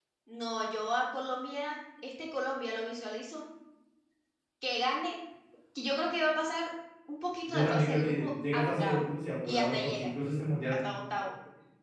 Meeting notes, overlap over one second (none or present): present